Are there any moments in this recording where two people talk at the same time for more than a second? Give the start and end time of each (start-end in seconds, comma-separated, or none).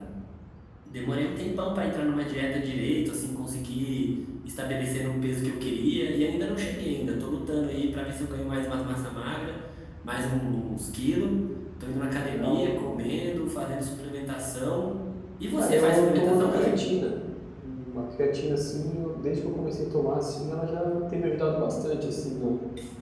15.6-16.8